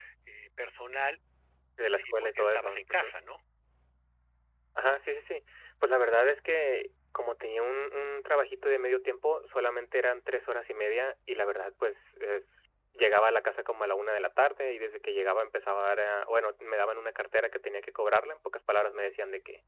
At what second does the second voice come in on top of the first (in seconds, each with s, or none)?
1.9 s